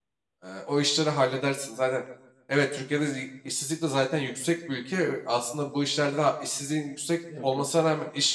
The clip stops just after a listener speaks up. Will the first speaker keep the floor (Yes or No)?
Yes